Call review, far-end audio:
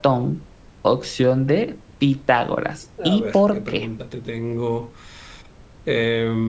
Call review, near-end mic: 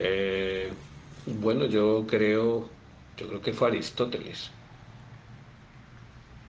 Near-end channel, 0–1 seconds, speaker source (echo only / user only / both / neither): user only